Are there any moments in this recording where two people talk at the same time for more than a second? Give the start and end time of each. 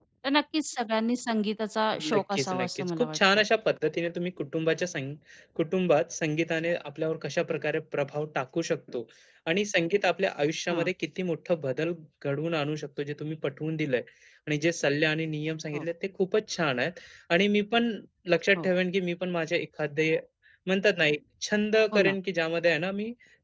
2.1-3.4

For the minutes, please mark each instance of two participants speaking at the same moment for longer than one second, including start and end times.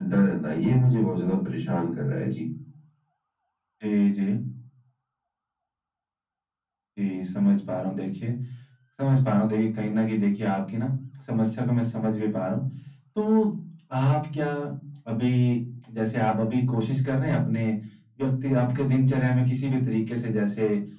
none

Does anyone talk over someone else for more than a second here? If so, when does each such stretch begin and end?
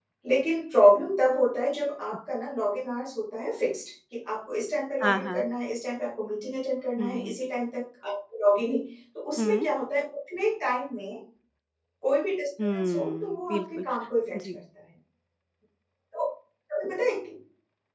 12.6-13.8

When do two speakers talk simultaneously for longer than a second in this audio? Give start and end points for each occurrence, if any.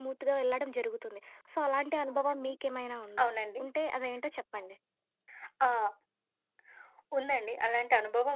none

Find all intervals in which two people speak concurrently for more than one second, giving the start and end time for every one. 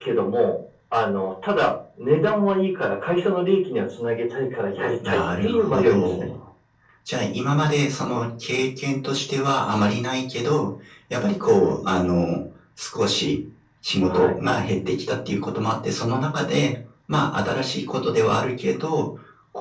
5.0-6.3

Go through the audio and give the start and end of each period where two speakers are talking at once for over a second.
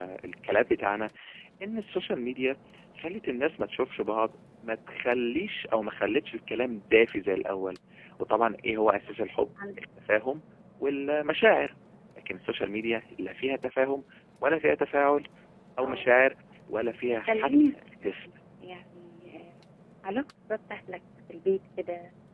16.8-18.2

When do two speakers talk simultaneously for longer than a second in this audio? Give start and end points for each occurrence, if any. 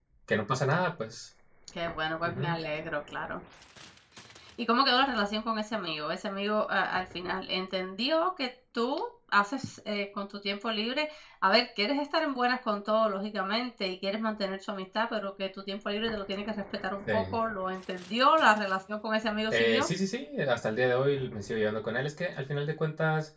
none

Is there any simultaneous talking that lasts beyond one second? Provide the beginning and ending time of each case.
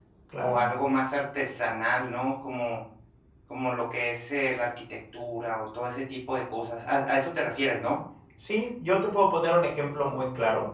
none

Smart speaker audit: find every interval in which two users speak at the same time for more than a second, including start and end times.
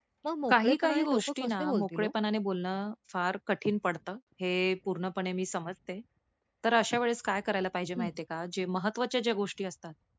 0.5-2.1

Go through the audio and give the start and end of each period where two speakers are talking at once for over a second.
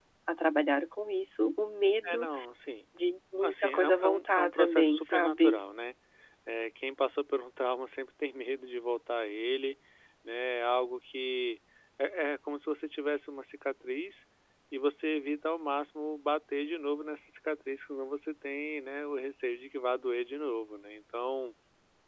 3.4-5.5

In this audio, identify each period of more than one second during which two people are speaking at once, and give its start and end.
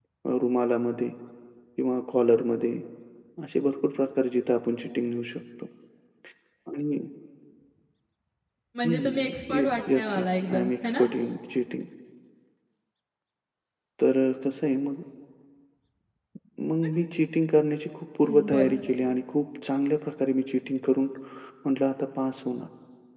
8.8-11.0

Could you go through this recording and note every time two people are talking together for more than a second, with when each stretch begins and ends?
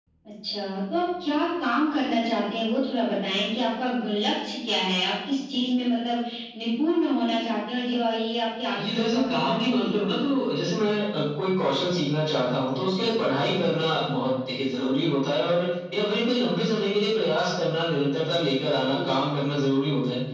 8.8-10.3

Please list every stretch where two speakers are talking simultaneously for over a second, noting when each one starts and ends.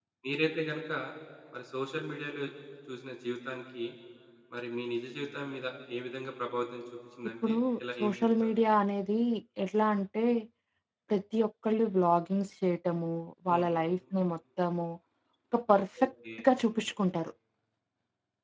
none

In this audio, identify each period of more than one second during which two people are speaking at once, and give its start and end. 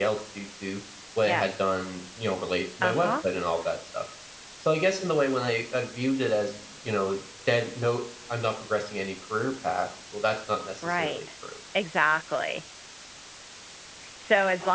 none

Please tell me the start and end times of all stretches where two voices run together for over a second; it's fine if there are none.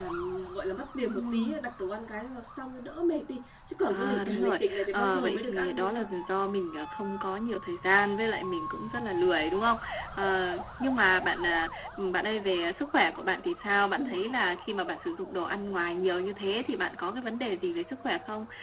3.9-6.0

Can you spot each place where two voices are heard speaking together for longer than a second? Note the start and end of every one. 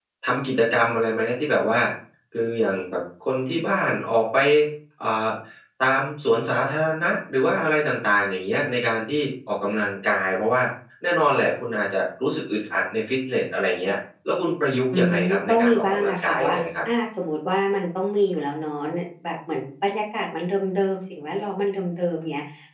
14.9-16.6

